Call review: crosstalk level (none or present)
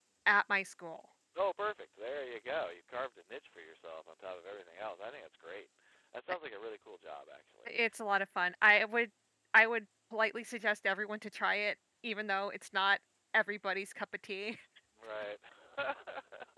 none